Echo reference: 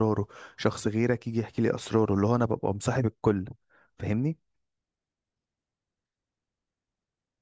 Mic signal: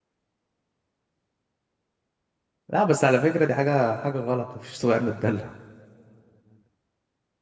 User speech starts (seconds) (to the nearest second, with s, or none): 3 s